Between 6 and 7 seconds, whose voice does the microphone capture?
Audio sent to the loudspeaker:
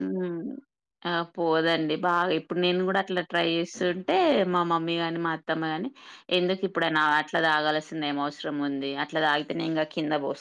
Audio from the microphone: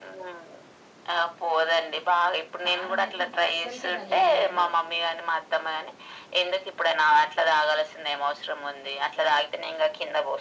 echo only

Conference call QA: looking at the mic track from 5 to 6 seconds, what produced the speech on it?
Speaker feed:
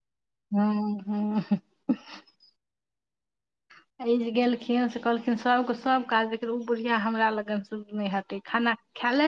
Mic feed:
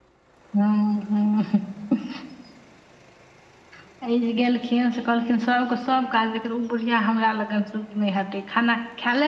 echo only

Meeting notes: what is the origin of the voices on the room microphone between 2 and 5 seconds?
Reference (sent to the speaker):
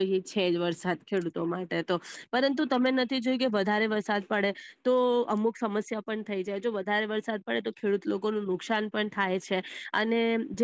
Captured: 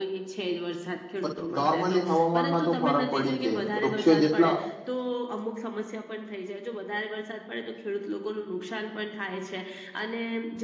both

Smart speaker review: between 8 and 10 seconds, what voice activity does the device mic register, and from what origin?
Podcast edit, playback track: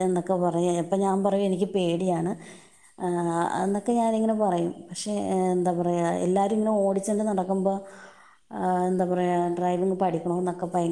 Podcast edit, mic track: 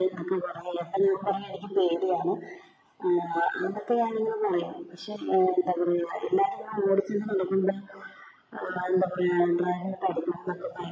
echo only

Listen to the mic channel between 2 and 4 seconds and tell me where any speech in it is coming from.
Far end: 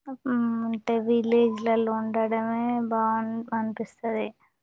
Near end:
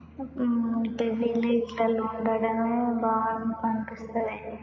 echo only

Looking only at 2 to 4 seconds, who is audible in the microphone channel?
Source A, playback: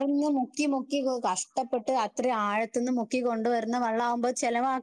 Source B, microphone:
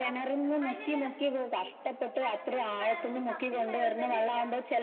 both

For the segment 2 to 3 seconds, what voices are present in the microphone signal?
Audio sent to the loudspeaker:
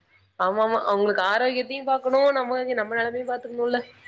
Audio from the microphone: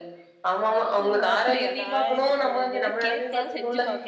both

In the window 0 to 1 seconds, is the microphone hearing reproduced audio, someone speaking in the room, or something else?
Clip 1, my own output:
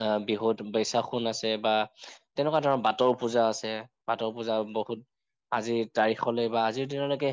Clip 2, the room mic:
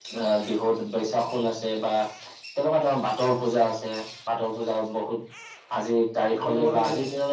echo only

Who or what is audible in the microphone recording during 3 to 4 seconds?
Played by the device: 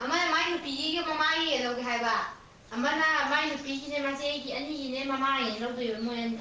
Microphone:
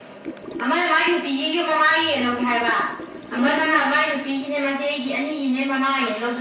both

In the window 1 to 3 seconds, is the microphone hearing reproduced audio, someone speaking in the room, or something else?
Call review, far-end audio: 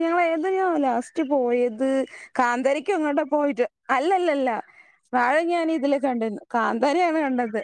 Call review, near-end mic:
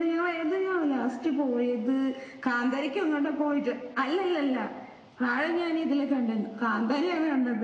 echo only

